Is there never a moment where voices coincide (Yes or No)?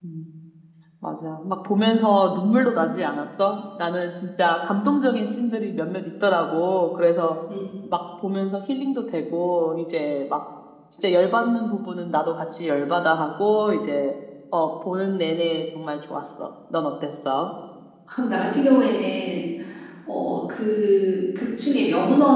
Yes